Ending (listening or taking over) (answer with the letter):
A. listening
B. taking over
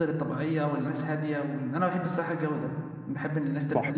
B